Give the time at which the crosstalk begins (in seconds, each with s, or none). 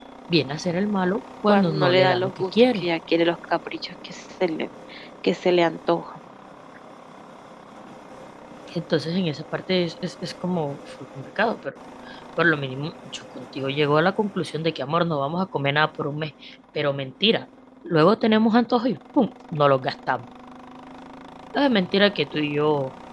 1.5 s